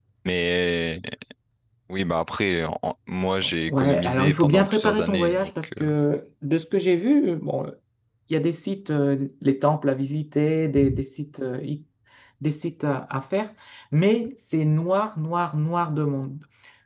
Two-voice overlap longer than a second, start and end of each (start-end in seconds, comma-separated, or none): 3.7-5.9